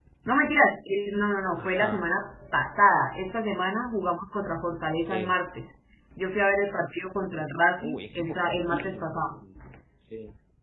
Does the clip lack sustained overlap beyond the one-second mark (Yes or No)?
No